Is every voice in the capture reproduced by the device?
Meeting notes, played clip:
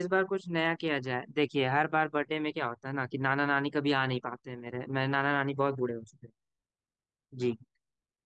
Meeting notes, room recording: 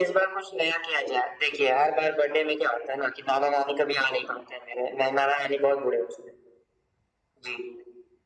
Yes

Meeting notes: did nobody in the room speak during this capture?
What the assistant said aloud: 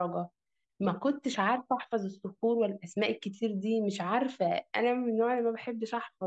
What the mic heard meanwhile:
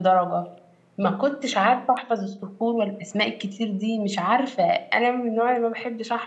Yes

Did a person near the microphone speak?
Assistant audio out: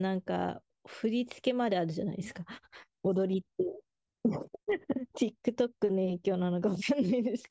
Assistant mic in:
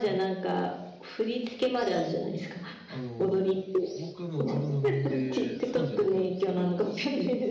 Yes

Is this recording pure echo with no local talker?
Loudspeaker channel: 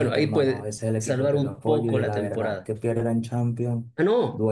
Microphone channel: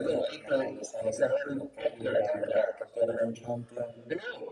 Yes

